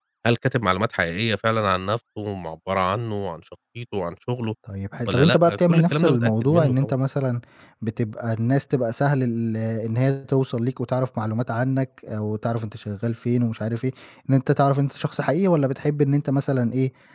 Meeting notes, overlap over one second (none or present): present